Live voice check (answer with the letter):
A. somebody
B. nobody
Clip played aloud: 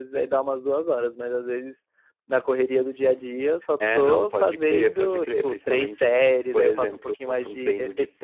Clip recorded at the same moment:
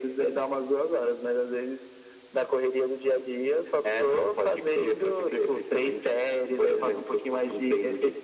B